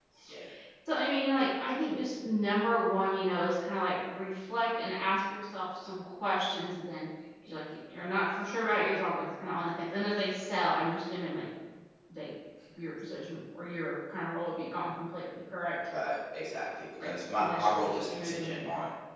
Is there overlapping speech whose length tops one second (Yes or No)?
Yes